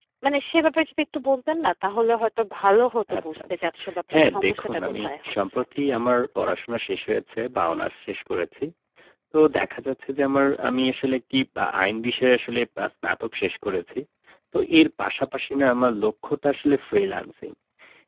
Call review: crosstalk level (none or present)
present